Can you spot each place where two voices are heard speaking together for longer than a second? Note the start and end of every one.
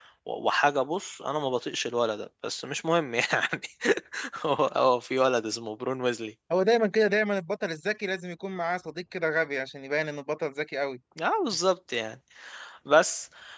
none

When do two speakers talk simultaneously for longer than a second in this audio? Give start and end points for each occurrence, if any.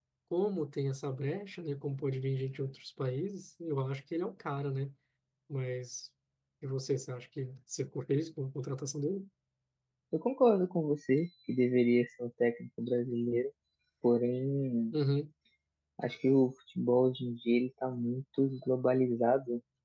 none

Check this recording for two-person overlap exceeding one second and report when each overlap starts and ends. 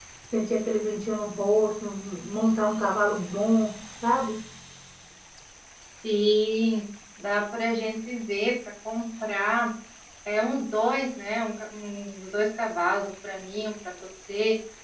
none

